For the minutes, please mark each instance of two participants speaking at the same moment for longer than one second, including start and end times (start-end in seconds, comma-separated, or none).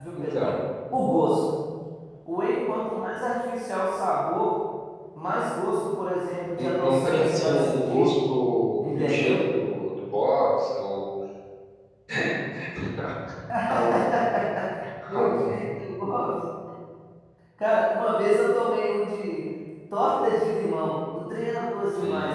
6.6-8.1